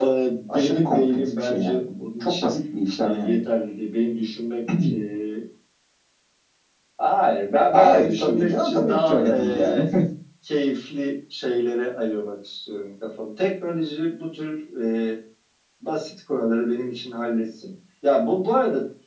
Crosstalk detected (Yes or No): Yes